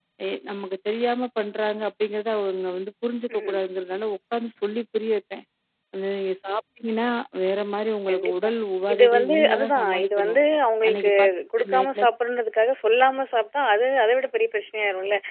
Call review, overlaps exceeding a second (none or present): present